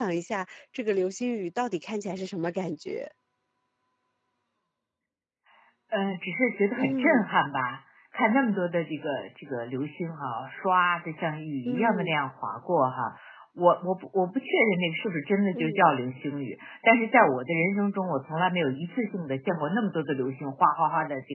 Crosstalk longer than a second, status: none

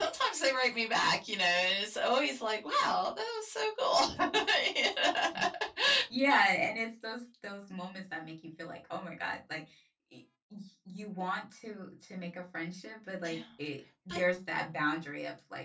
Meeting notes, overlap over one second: none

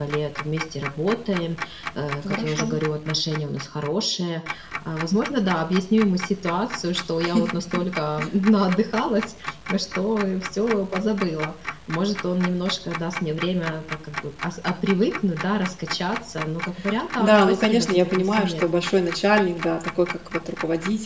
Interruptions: present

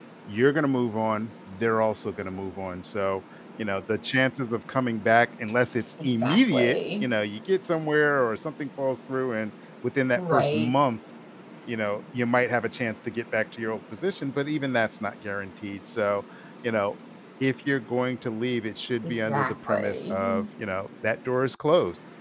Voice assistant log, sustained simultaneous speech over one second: present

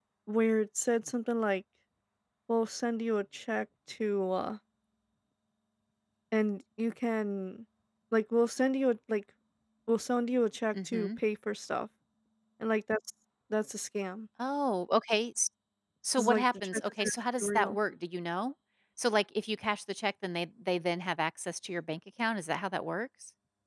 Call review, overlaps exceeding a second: present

